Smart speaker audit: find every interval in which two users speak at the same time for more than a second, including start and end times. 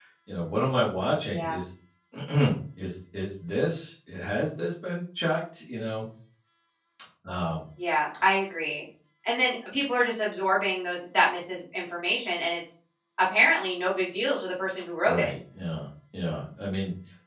none

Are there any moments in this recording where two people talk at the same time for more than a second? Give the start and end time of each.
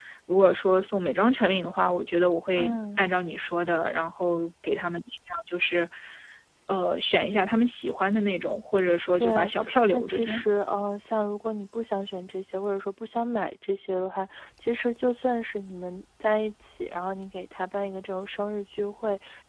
none

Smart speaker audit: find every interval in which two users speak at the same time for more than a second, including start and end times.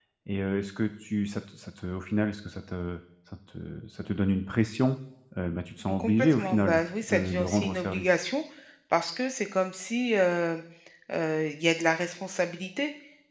6.0-8.2

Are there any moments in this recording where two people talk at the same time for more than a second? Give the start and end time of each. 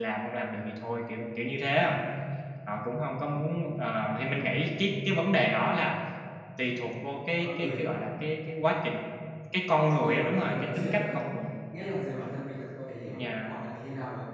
9.8-11.2

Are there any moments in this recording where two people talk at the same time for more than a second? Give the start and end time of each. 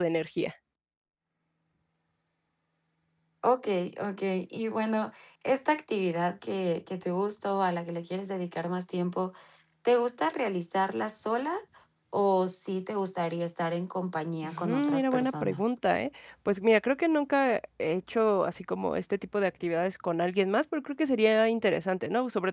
14.4-15.7

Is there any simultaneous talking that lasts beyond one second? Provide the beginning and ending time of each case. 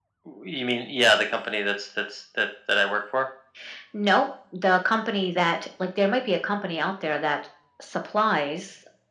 none

